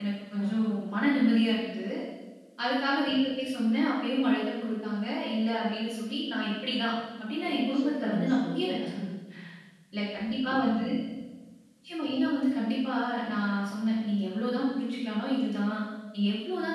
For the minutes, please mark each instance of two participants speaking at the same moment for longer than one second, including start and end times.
7.4-8.8

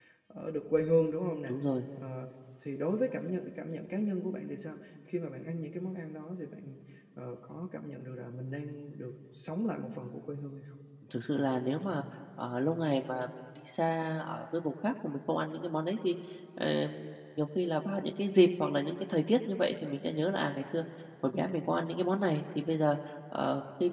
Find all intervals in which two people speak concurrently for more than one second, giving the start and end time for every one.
none

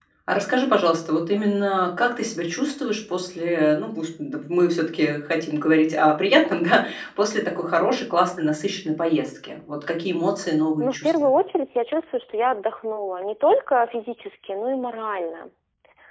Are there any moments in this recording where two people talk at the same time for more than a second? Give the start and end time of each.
none

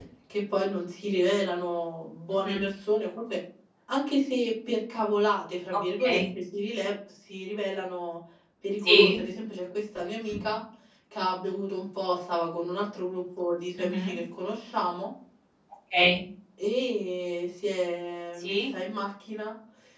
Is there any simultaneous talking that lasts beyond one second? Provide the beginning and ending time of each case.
none

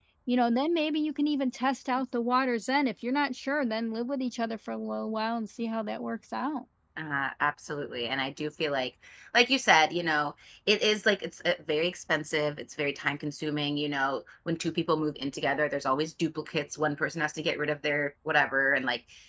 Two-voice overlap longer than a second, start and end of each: none

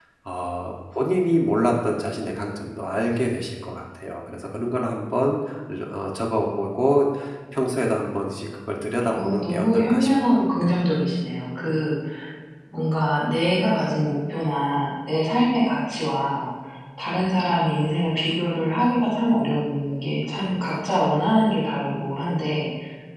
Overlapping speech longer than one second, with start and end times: 9.1-10.4

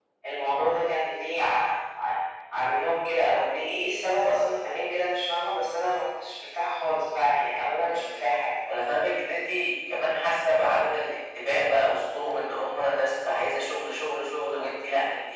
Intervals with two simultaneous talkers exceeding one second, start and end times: none

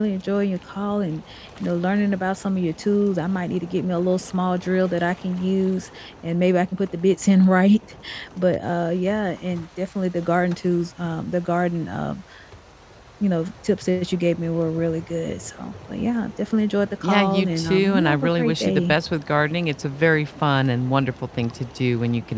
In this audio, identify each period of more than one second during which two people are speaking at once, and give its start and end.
17.0-18.9

